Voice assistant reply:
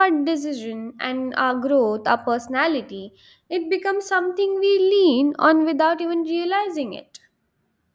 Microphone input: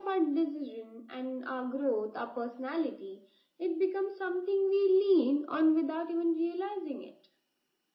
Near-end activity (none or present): none